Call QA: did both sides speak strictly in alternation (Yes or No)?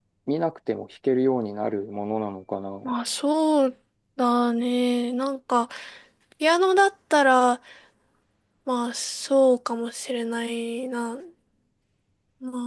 Yes